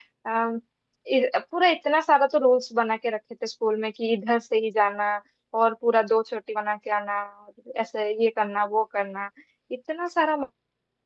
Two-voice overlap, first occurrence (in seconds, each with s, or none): none